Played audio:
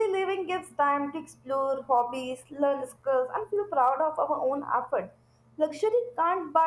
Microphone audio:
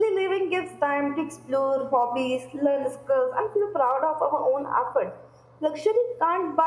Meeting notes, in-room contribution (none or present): none